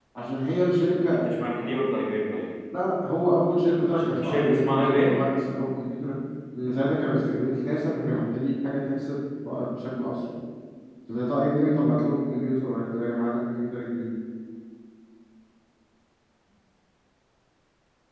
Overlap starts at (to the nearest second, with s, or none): 4 s